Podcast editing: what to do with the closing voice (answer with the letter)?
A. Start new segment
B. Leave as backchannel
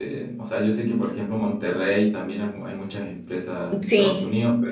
B